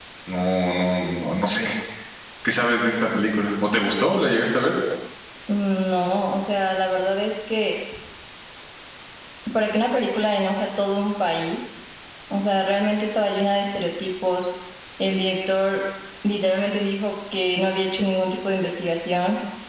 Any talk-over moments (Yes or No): No